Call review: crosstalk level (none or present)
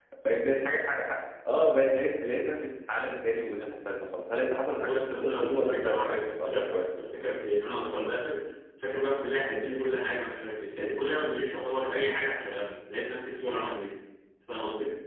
present